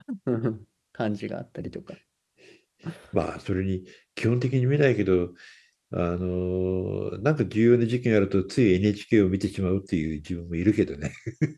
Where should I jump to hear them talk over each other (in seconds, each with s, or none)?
none